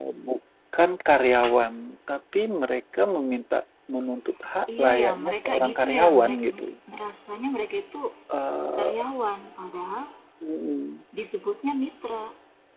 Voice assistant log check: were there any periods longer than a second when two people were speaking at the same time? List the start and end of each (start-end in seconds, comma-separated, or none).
4.8-6.4